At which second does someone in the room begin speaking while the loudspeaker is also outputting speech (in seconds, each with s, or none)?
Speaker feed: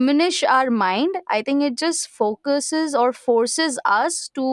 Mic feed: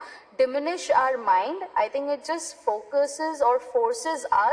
none